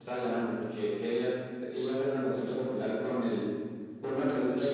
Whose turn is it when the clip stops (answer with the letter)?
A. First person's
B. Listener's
A